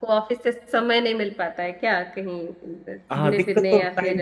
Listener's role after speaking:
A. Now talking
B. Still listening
A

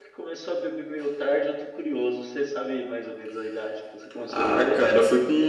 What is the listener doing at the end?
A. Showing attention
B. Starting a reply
B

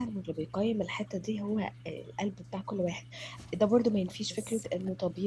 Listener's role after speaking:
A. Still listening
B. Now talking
A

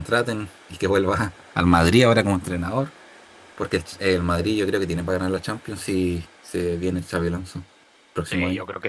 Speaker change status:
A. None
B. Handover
B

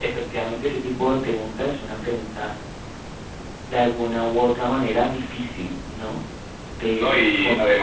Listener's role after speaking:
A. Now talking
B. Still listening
A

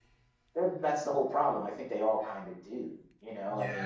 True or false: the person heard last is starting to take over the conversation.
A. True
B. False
A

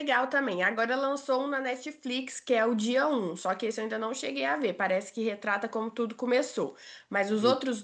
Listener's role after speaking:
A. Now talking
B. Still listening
B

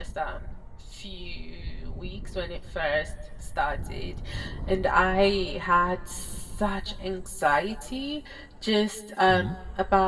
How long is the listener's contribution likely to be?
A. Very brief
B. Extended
A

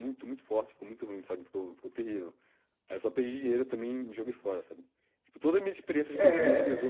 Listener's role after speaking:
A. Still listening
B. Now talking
A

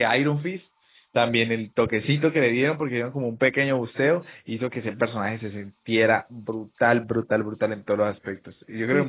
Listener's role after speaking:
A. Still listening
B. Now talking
B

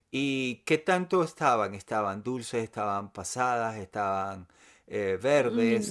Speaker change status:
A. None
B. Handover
B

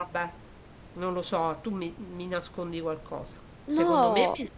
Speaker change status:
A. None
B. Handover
A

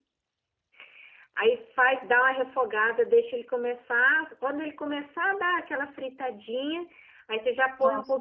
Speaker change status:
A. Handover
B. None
B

